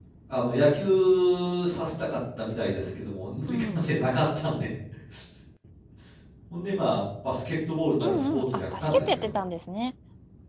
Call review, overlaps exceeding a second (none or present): present